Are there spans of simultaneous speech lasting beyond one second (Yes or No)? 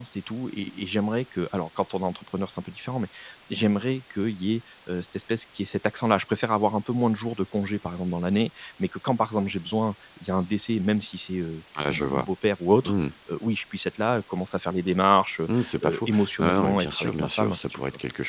Yes